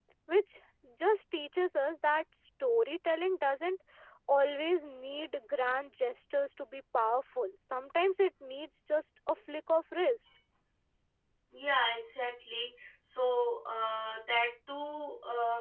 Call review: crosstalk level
none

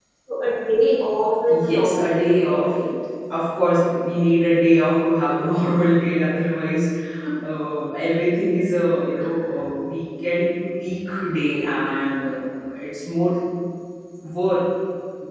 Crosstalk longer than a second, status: present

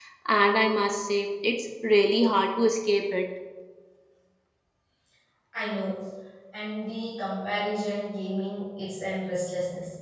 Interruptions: none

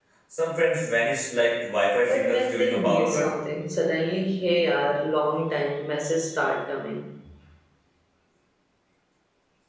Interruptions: present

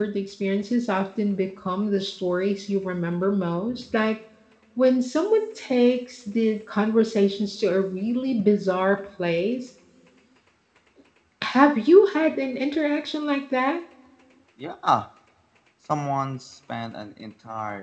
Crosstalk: none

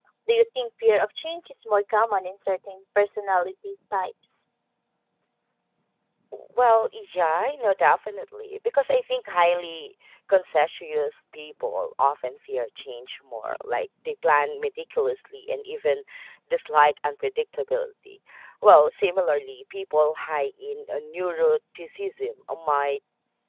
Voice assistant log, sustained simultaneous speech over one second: none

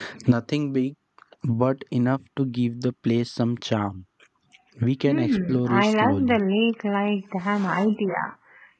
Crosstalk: present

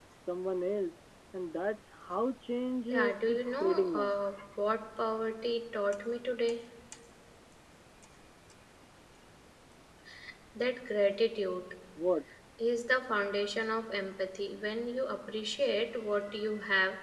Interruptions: present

